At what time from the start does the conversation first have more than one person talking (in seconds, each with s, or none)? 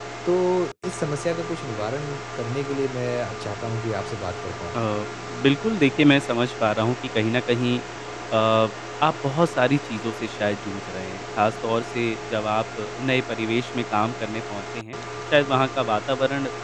none